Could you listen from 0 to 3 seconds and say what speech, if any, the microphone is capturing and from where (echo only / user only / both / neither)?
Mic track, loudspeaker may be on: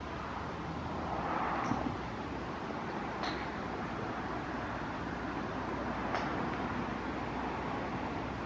neither